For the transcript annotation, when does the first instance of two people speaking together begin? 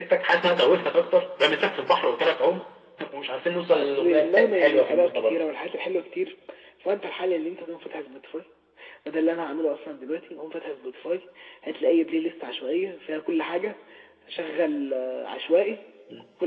3.7 s

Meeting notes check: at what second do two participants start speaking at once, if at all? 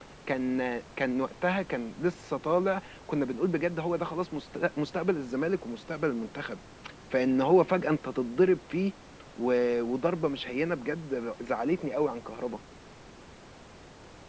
none

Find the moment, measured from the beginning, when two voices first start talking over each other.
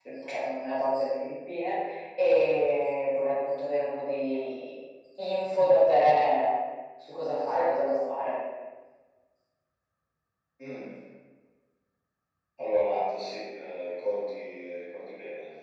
none

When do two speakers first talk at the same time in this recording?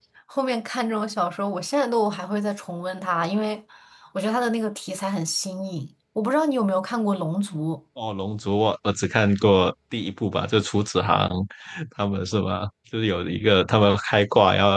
none

